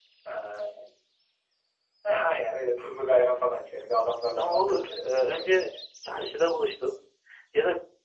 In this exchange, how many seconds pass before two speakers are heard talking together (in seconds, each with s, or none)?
4.3 s